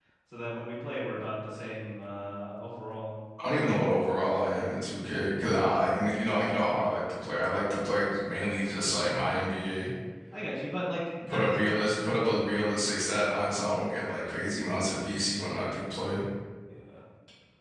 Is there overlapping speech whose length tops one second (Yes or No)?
No